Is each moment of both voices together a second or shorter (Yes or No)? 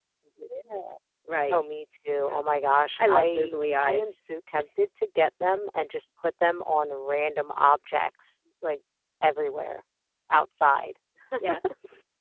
No